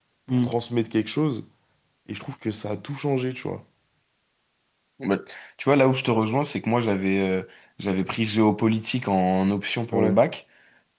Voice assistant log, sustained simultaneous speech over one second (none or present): none